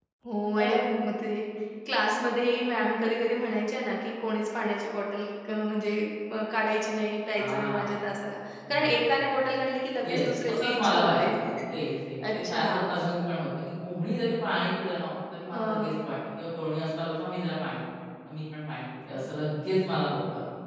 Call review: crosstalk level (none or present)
present